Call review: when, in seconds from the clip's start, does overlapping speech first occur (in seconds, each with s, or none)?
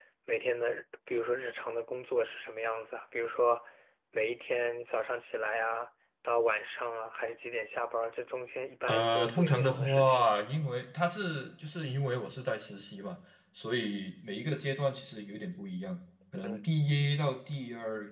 8.9 s